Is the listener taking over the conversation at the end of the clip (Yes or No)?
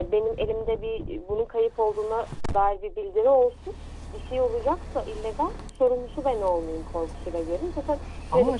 Yes